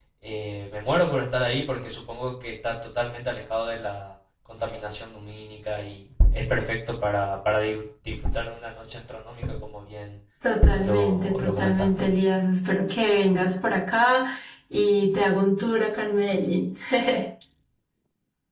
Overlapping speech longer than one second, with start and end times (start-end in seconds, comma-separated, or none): 10.8-12.1